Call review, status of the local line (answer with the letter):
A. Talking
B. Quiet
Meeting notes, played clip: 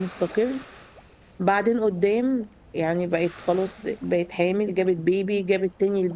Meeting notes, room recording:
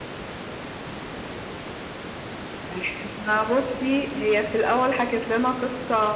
A